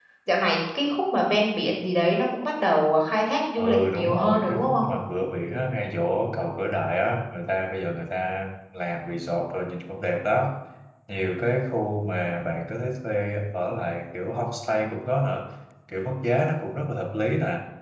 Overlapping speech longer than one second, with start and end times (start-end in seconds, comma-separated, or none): 3.6-4.8